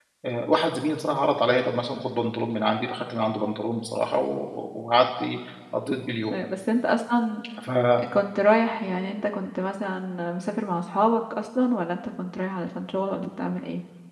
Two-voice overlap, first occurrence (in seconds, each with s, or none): none